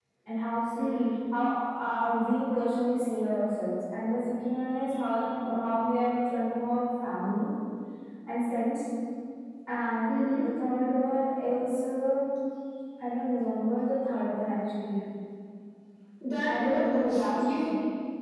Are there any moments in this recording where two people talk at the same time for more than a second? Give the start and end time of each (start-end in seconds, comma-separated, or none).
16.4-17.7